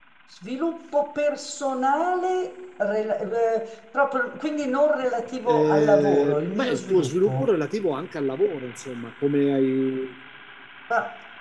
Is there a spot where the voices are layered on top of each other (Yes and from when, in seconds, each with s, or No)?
Yes, from 5.5 s